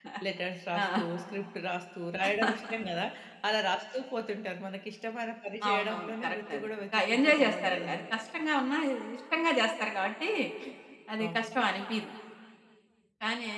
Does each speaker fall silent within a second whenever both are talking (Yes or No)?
No